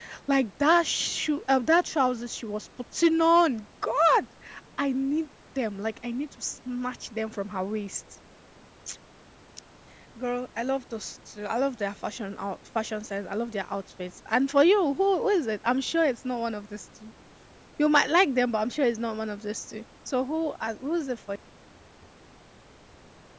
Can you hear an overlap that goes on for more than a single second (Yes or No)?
No